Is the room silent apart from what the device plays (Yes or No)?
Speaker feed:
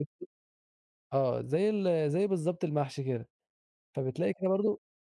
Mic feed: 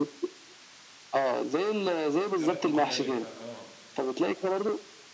No